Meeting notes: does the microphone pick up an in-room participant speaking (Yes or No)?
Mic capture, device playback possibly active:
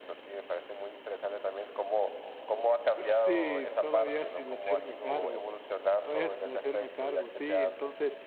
Yes